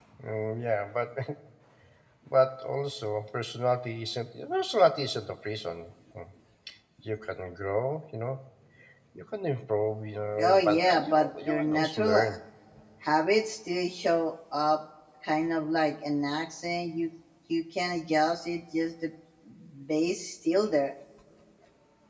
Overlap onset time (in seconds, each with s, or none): 10.4 s